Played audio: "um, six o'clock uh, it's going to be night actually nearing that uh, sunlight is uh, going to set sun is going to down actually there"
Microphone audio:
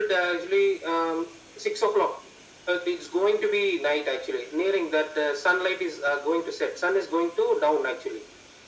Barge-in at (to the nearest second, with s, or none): none